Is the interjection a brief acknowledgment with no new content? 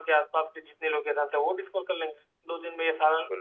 Yes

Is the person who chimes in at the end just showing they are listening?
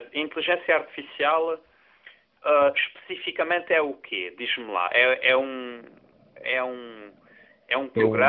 Yes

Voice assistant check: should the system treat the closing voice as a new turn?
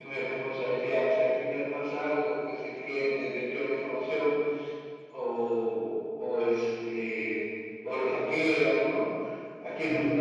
No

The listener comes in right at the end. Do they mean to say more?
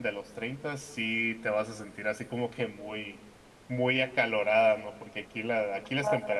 No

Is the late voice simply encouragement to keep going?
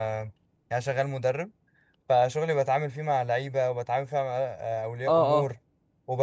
Yes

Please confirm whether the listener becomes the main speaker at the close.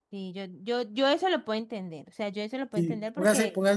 Yes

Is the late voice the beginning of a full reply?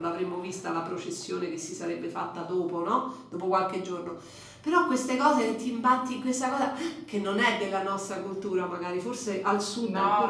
Yes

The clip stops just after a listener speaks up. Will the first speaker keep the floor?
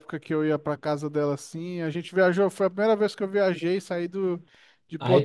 No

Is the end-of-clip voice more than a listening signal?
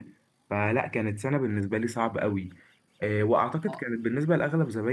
No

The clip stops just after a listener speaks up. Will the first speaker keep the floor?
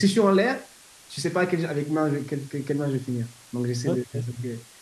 Yes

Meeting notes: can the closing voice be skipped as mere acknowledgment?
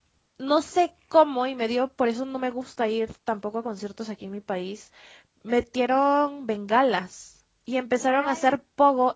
Yes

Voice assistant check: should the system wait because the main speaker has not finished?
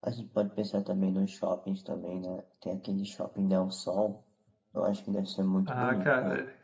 No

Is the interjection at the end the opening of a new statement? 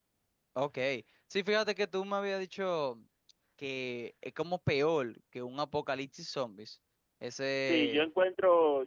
Yes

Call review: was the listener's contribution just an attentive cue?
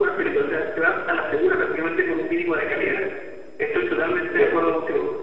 Yes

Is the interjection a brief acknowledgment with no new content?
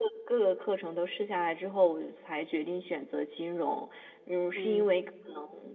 Yes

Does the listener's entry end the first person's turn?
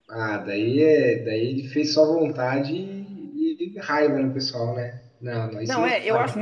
Yes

